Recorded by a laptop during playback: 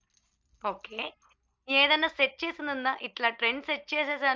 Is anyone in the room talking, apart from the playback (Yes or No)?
Yes